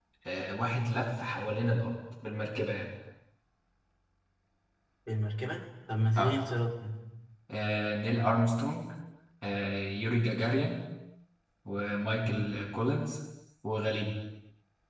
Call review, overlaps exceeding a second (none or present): none